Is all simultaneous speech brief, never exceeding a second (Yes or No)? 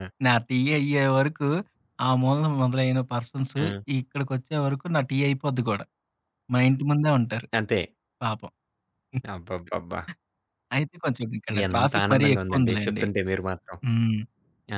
No